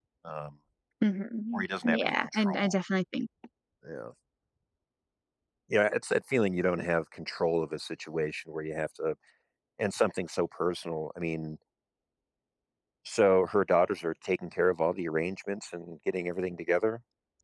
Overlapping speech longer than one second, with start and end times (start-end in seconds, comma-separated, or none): 1.5-2.8